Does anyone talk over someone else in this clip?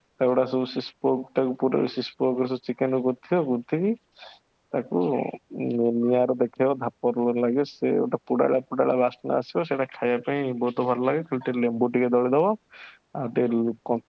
No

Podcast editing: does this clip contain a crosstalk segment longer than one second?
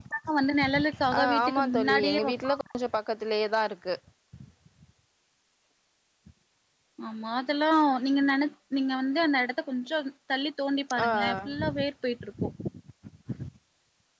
Yes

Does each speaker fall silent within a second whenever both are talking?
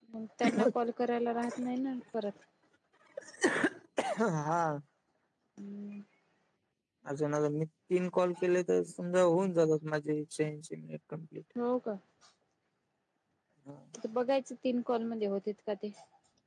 Yes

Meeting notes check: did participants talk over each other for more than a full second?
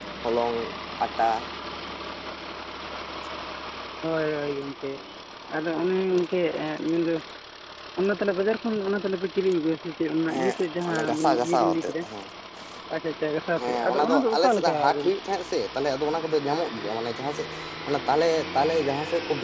Yes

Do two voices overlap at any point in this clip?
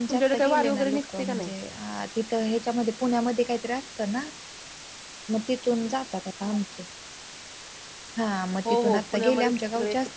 Yes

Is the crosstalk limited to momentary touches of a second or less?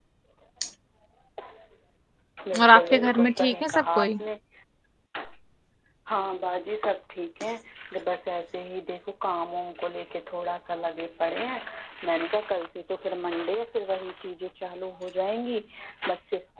No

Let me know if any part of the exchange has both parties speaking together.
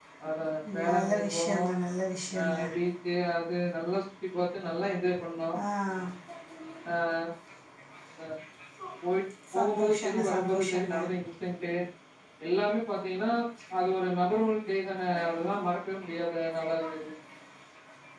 Yes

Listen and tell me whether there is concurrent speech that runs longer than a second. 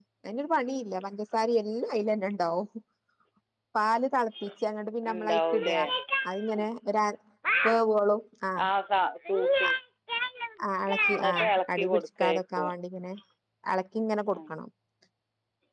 Yes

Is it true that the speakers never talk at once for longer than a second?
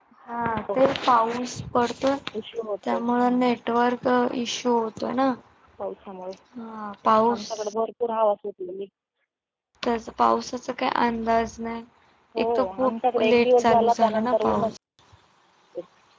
No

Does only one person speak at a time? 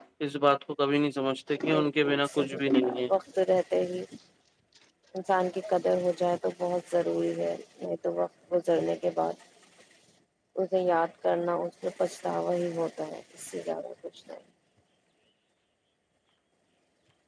No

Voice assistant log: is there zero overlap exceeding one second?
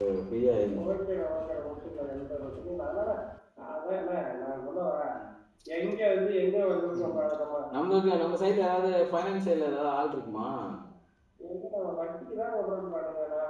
Yes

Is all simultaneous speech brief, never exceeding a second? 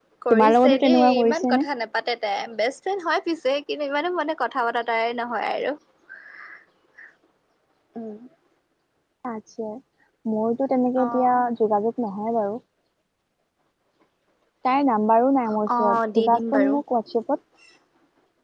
No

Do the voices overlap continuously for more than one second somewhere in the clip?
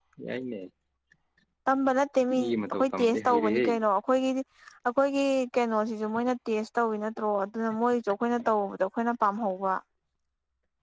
Yes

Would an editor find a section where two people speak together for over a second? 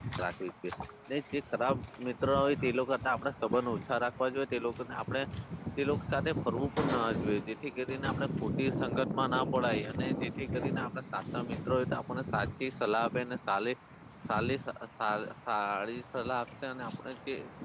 Yes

